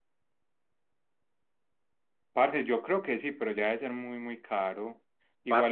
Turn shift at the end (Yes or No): No